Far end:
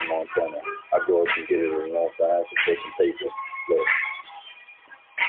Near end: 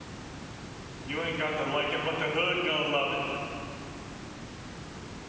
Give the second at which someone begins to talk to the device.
1.0 s

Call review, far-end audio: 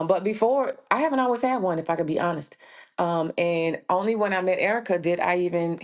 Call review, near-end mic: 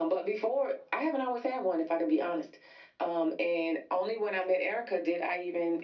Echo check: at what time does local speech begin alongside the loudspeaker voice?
none

